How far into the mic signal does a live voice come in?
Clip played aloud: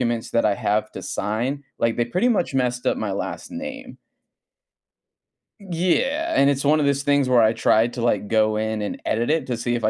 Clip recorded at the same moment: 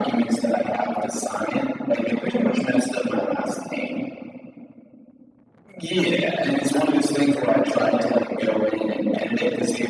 none

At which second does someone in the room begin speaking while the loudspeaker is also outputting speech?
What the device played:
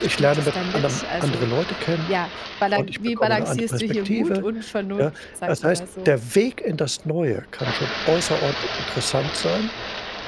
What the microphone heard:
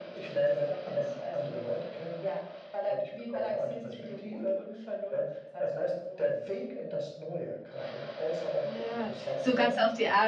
9 s

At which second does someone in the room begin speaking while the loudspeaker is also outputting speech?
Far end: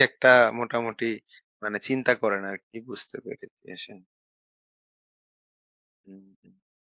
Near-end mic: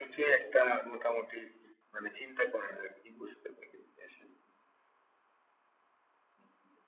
none

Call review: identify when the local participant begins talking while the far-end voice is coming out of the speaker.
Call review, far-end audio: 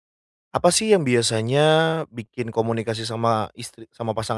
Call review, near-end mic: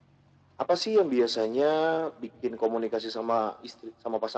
none

